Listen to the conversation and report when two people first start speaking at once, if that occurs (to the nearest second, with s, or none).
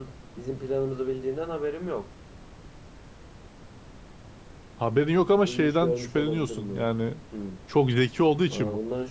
5 s